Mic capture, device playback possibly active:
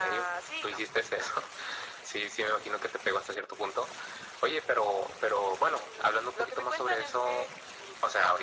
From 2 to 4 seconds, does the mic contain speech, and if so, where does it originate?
echo only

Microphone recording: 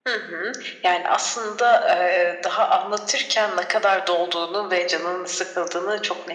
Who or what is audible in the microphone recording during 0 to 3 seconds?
echo only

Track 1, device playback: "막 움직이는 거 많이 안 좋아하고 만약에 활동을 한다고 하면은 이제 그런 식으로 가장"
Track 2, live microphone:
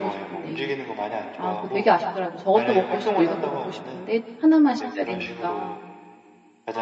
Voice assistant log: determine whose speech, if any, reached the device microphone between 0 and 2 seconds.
both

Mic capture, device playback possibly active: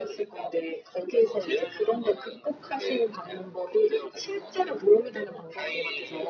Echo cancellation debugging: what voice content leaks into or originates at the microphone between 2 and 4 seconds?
echo only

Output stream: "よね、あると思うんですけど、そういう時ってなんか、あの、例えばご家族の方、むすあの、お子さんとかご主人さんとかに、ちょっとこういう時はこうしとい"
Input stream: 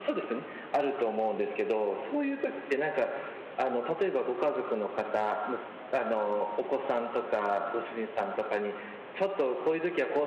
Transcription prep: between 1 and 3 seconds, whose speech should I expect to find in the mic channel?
echo only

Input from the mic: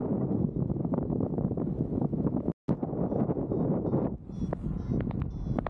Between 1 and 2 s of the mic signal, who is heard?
neither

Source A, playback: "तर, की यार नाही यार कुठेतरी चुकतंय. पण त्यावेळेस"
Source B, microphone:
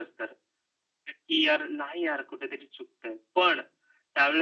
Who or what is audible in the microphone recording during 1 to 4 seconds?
echo only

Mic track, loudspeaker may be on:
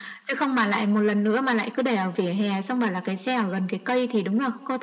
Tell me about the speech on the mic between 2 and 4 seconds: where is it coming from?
echo only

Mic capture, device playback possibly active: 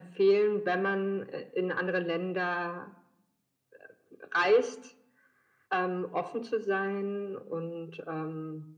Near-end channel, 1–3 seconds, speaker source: echo only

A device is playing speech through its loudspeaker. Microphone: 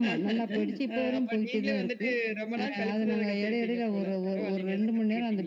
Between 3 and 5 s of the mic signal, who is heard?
echo only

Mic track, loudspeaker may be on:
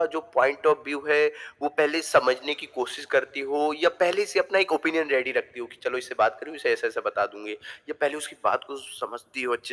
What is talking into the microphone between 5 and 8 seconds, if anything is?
echo only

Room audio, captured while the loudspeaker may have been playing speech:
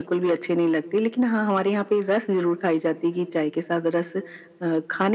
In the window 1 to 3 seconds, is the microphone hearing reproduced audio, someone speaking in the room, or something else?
echo only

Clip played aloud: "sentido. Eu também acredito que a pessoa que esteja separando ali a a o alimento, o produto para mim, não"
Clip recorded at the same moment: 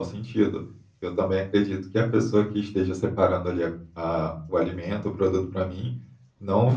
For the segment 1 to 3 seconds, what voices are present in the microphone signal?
echo only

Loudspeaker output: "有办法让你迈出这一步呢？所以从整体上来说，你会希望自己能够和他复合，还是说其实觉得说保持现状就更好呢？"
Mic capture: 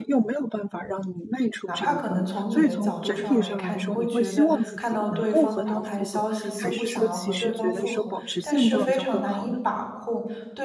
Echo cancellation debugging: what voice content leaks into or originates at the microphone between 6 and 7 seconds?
both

